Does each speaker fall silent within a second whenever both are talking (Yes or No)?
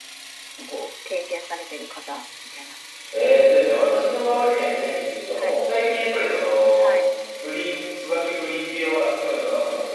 Yes